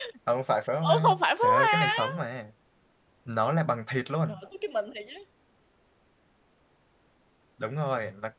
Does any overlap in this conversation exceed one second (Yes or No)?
Yes